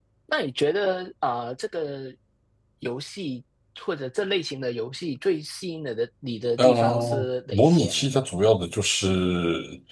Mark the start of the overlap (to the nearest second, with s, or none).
7 s